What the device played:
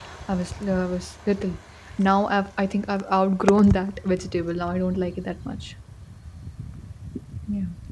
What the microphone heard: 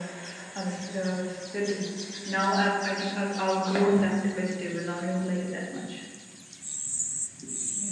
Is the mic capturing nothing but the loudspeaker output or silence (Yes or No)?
Yes